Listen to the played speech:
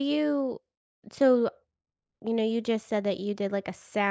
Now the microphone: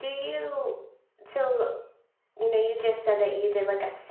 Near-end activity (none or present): none